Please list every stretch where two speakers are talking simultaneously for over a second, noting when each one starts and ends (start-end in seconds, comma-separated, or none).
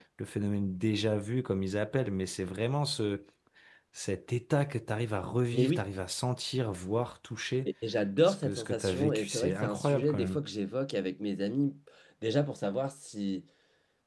8.3-10.4